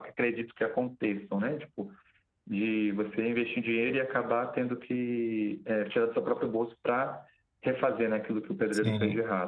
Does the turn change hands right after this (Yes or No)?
Yes